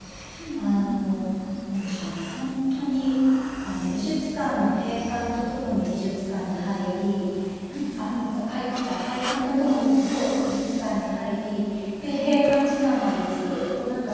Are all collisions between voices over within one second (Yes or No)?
No